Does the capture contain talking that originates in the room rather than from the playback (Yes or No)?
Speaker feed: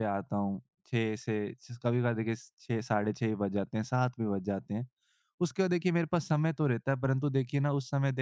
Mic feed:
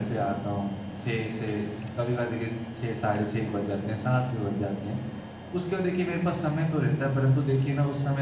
No